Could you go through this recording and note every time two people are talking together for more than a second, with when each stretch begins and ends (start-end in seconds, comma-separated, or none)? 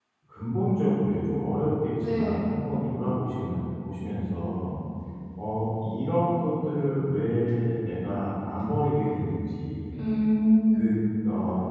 none